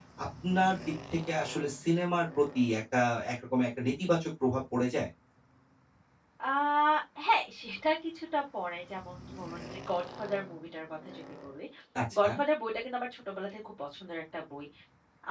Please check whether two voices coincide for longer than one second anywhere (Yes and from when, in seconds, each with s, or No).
No